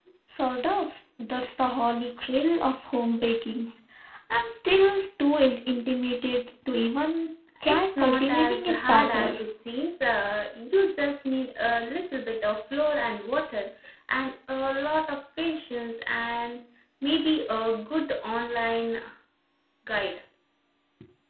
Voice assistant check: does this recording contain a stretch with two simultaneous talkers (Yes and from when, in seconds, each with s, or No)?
Yes, from 7.6 s